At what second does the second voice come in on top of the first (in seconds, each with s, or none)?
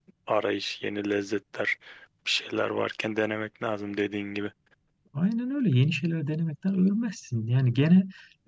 none